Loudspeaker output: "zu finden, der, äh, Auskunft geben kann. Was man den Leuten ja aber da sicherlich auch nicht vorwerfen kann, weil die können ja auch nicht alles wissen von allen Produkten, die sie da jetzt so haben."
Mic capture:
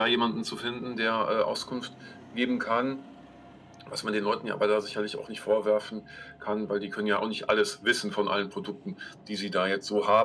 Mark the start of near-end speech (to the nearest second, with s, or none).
none